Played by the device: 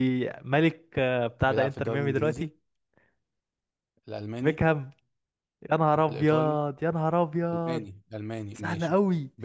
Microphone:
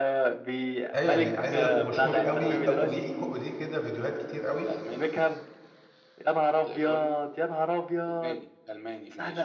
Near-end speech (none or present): present